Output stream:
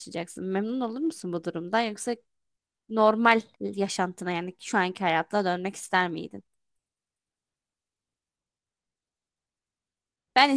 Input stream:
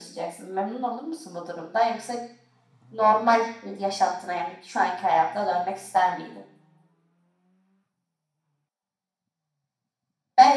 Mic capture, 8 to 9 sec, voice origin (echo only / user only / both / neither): neither